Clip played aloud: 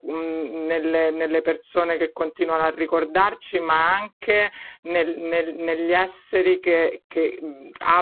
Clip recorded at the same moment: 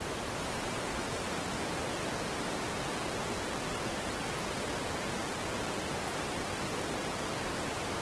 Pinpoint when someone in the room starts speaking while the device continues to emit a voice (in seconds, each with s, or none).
none